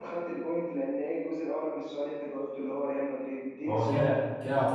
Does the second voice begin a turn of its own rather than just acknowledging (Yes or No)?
Yes